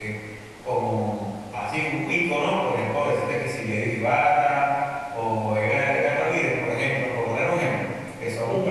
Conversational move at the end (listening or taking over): listening